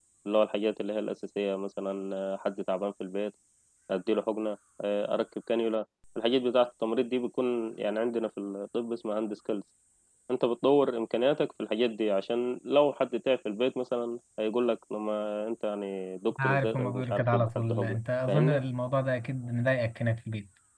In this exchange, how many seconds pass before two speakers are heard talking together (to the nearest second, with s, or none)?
16 s